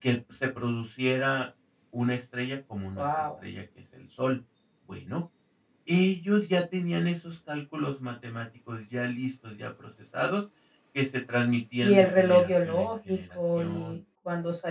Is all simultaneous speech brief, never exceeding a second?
No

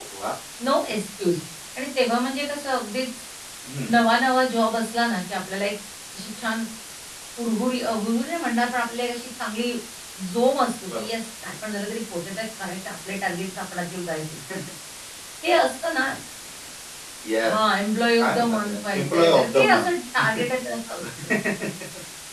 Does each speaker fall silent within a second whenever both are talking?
No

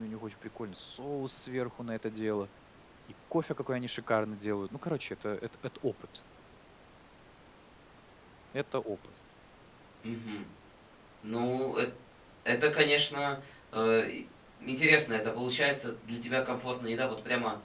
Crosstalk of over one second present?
No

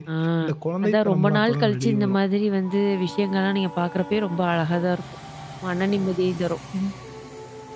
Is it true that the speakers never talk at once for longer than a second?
No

